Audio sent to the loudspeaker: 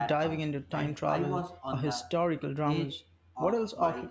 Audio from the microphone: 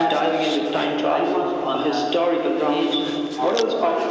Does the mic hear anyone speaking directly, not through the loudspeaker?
No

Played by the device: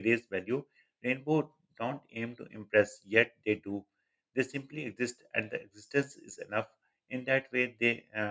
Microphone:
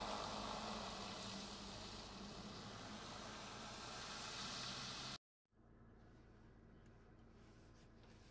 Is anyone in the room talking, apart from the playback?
No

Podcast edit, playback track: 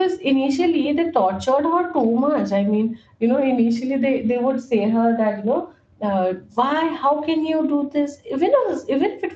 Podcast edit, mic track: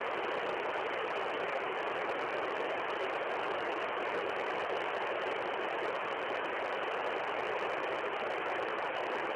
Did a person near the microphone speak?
No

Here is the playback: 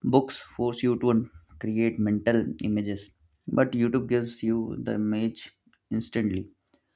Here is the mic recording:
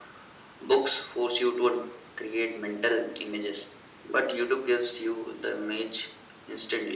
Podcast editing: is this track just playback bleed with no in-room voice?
Yes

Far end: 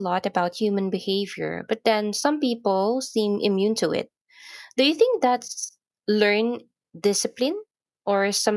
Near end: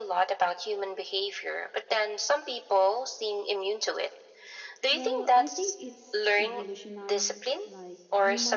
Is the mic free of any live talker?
No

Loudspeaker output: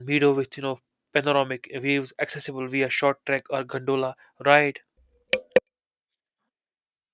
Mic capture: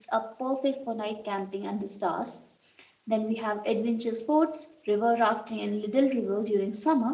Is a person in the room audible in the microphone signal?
Yes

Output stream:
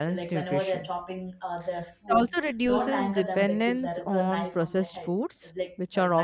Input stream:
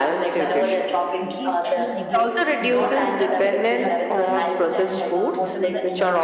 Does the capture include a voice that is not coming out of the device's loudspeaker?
Yes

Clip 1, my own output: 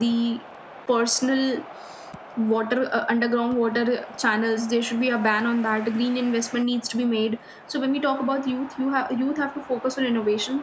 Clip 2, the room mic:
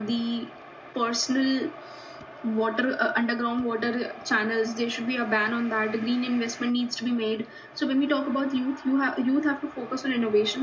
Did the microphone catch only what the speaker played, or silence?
Yes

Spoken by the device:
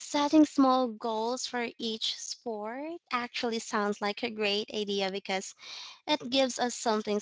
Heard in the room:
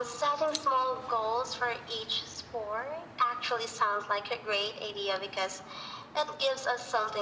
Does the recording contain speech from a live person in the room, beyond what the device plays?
No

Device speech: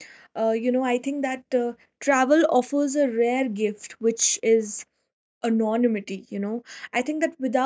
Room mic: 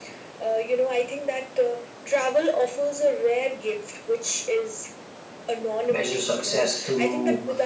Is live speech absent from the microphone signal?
No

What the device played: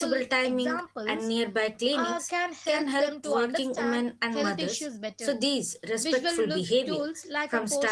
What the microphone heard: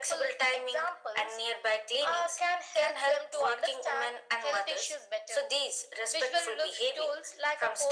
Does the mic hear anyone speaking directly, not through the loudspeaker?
No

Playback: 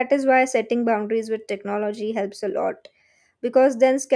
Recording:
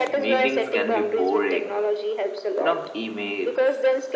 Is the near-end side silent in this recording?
No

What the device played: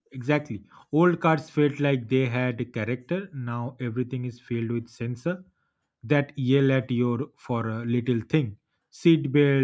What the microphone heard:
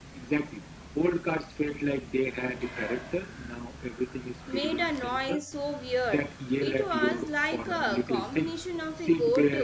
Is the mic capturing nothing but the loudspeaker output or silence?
No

